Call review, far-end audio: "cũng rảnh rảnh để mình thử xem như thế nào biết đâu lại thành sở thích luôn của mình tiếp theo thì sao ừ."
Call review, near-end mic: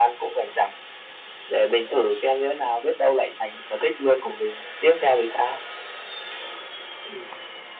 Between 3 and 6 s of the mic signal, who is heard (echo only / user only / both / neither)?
echo only